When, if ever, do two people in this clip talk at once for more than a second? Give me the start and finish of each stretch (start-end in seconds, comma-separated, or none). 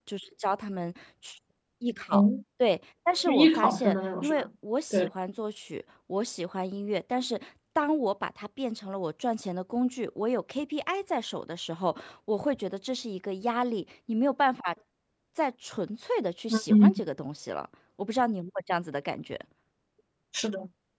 3.3-4.5